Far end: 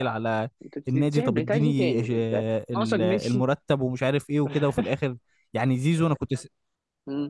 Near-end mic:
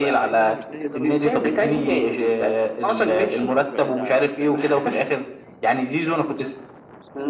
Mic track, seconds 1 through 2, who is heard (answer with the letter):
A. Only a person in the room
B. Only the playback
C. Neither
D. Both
D